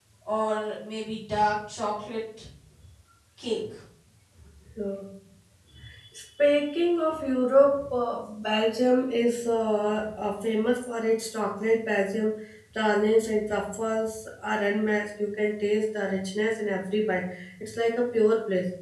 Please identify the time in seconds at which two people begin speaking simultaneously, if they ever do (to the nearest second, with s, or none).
none